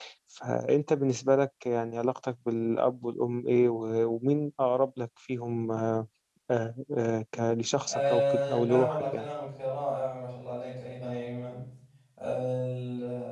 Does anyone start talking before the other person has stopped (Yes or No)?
Yes